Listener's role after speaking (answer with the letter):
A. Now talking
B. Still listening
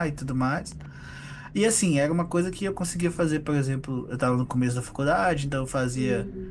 B